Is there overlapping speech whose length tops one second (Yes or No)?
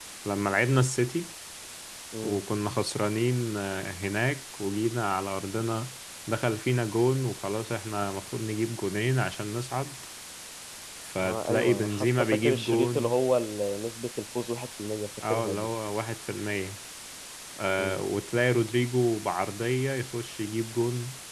Yes